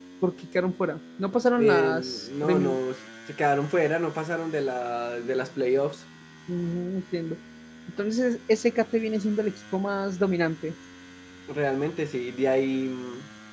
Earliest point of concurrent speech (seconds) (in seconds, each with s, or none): 1.6 s